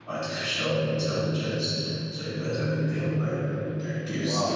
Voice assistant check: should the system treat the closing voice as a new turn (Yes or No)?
Yes